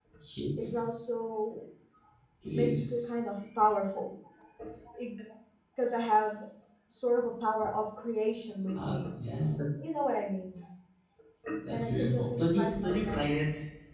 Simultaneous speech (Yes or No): Yes